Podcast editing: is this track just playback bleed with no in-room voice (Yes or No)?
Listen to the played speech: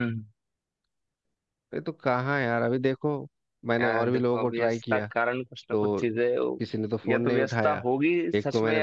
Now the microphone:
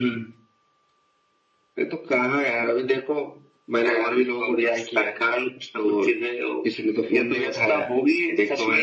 Yes